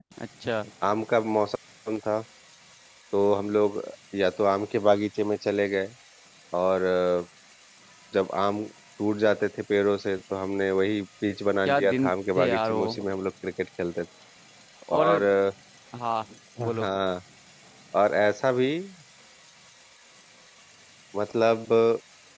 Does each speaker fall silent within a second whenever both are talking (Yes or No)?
No